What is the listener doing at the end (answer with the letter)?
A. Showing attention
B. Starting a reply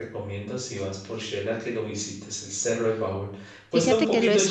B